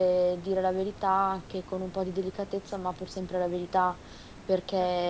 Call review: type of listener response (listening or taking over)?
listening